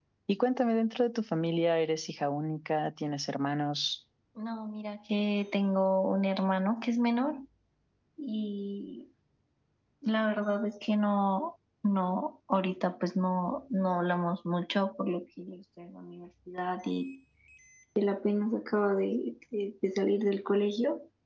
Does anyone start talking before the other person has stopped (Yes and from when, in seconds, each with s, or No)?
No